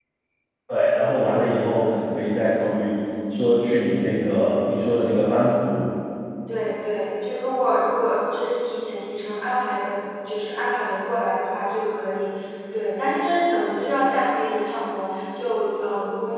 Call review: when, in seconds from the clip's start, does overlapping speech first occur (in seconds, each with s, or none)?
none